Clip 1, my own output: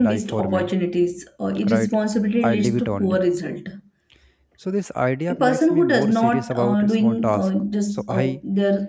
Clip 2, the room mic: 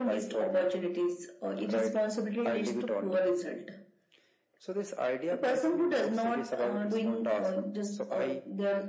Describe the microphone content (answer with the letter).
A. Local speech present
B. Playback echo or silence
B